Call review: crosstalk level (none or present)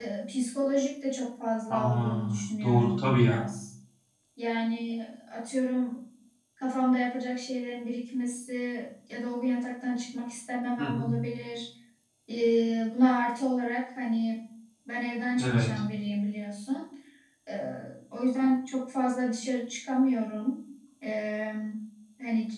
present